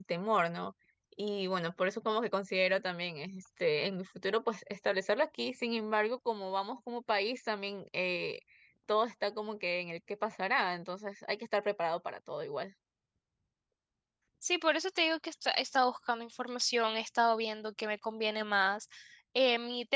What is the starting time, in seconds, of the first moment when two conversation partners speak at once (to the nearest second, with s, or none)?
none